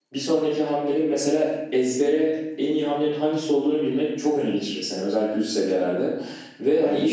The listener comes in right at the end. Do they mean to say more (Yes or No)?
No